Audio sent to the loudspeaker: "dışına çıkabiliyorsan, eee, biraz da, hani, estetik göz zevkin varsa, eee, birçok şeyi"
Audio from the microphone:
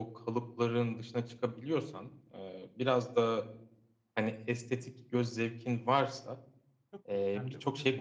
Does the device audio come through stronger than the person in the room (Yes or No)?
Yes